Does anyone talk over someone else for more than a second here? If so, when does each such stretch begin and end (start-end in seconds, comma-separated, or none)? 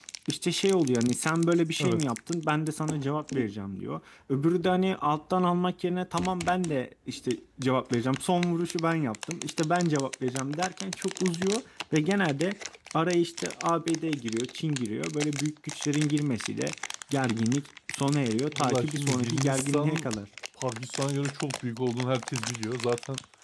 18.5-20.1